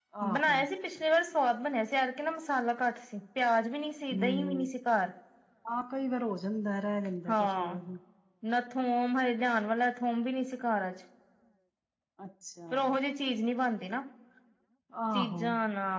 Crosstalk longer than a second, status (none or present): none